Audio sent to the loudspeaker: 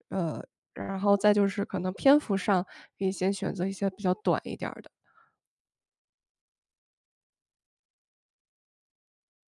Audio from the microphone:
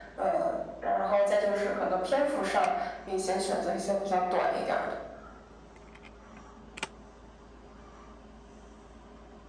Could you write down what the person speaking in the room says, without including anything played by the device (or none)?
none